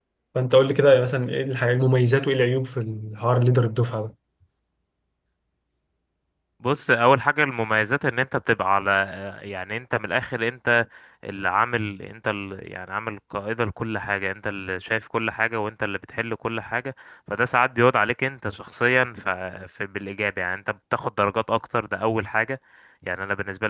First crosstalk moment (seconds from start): none

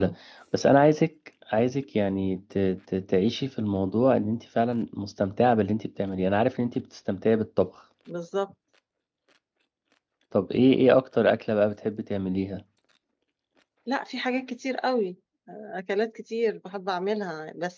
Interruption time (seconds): none

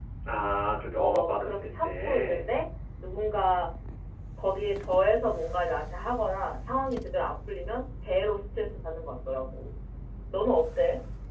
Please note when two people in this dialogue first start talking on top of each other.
1 s

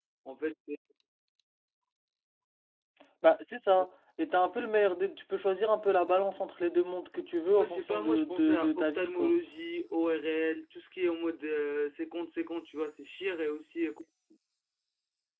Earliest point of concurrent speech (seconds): 8 s

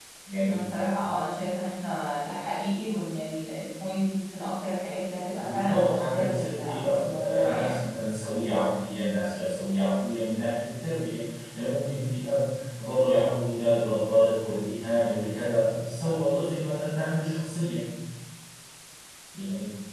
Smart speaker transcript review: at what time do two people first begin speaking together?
5 s

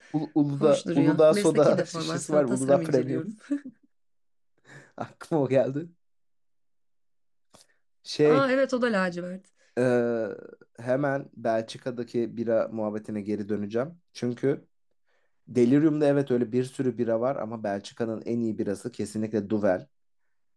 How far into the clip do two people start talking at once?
1 s

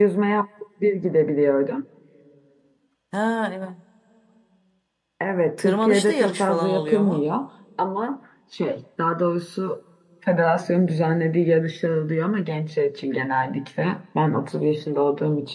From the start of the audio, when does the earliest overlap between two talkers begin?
6 s

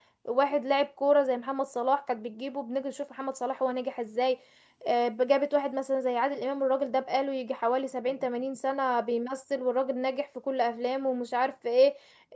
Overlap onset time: none

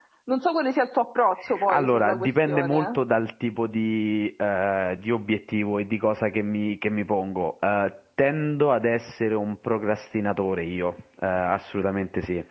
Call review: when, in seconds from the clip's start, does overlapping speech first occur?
1 s

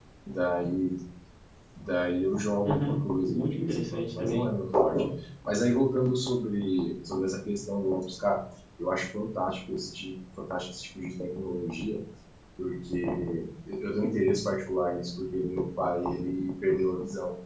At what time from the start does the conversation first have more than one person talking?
3 s

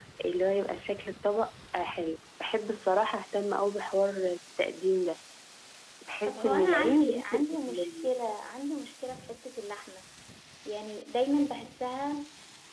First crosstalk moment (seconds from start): 6 s

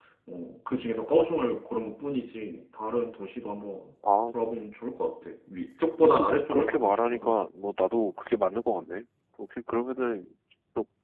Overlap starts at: 6 s

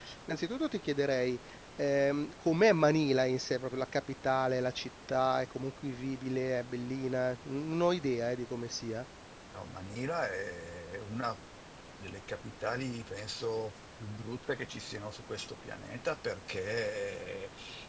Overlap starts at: none

